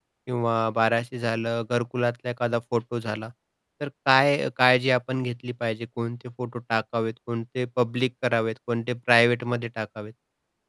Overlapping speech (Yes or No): No